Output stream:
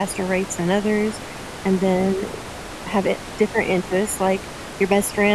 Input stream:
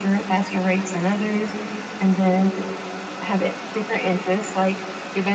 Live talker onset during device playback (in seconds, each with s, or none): none